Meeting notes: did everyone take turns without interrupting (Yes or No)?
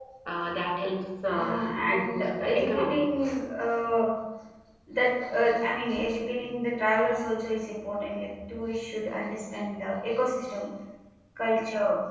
No